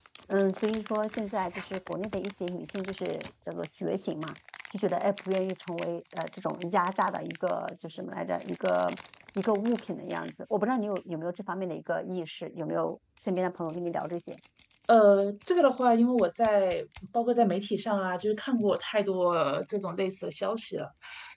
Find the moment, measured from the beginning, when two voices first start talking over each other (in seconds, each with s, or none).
none